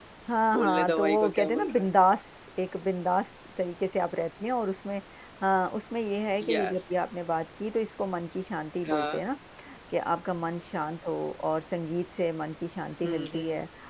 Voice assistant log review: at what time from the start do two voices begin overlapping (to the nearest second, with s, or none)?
1 s